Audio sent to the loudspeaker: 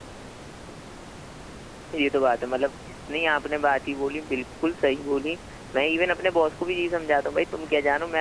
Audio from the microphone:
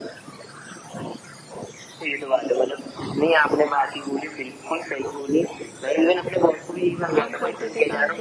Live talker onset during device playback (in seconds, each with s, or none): 7.1 s